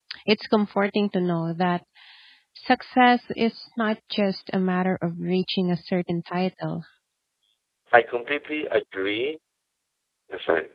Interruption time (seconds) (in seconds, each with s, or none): none